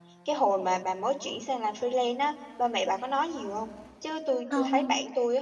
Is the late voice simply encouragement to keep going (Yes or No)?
Yes